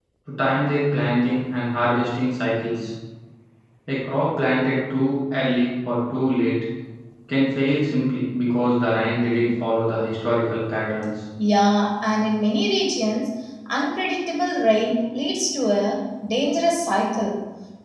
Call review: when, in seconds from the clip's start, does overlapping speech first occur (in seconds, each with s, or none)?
none